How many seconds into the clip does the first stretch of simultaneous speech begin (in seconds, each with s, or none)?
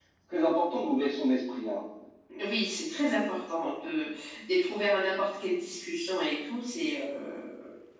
none